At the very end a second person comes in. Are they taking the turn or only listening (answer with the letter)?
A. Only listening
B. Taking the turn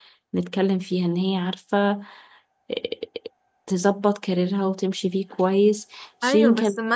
B